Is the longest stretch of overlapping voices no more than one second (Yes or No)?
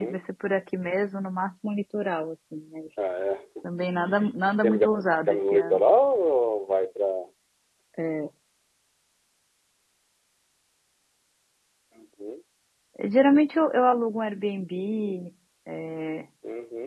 No